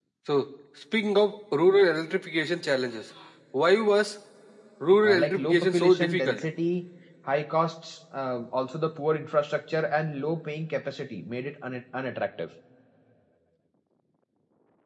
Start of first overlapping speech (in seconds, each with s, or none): 5.0 s